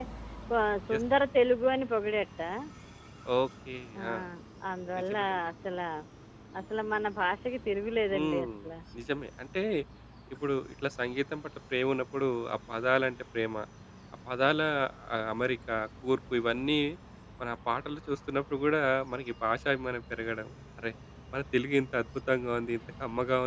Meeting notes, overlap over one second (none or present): none